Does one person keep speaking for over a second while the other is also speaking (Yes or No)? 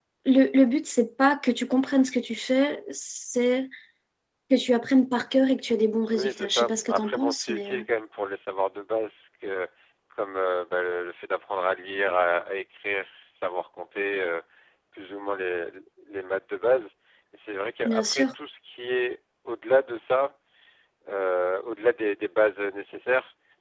Yes